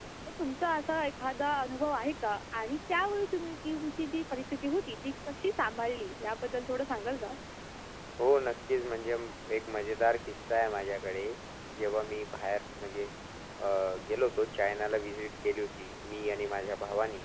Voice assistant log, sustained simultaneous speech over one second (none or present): none